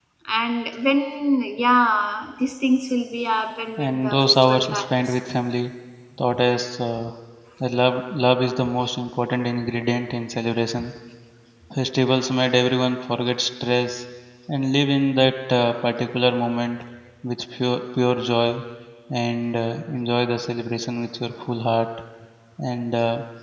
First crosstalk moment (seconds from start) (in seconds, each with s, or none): 3.8 s